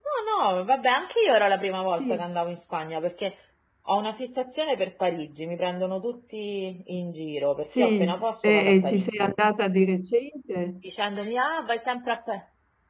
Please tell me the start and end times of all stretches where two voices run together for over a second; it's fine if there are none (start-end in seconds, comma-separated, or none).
7.8-9.3